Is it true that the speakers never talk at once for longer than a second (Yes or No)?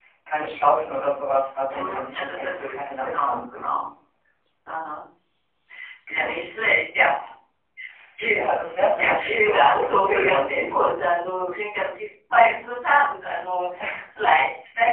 No